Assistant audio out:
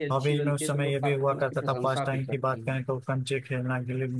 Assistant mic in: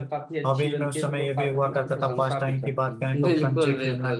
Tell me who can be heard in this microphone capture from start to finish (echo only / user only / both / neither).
both